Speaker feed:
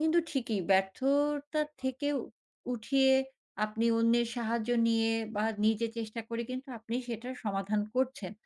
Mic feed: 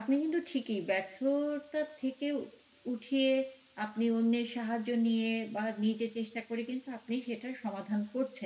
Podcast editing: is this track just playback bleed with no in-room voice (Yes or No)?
Yes